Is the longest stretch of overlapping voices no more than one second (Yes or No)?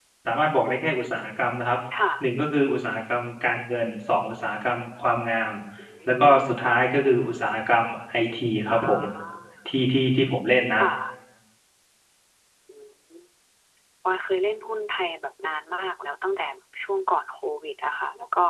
Yes